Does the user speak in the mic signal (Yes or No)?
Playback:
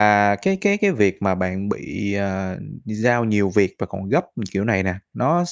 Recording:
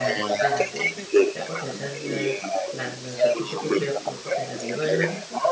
Yes